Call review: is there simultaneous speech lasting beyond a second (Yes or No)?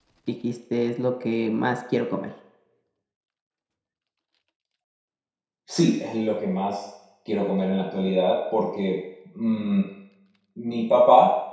No